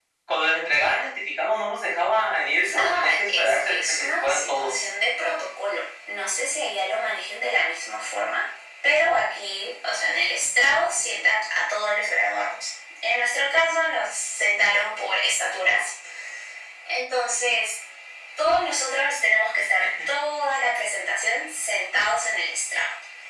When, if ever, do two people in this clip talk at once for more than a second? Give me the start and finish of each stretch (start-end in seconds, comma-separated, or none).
2.8-4.9